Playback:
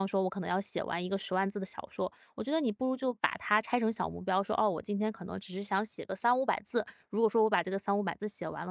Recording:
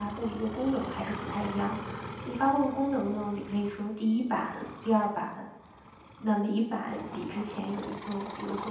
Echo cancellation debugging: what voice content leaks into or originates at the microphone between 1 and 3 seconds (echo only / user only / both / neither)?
user only